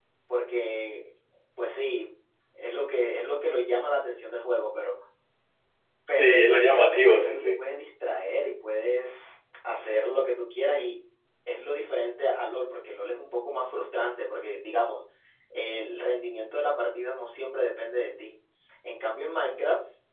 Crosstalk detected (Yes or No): Yes